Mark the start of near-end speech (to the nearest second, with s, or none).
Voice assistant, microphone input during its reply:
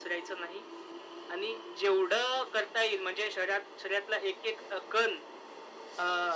none